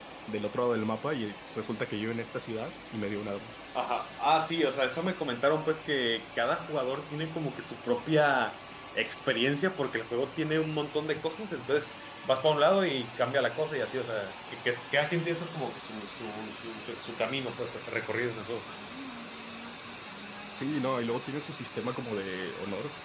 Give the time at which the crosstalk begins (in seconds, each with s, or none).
none